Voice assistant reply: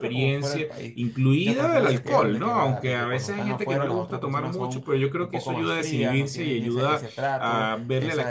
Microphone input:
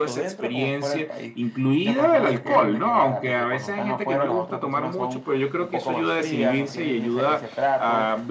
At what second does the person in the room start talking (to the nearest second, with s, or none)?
none